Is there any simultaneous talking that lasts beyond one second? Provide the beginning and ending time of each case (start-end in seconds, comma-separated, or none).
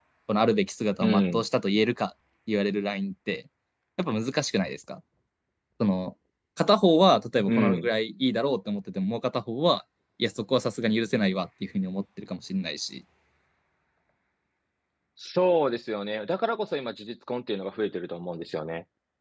none